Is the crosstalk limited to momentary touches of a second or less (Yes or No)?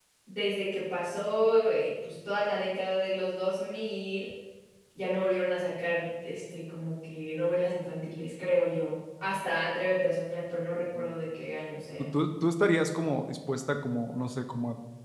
Yes